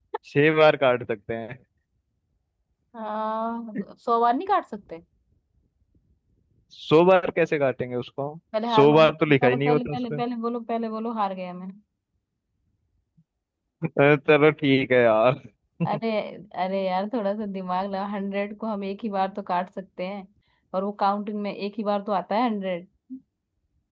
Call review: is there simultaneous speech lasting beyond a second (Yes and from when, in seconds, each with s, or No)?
Yes, from 8.7 s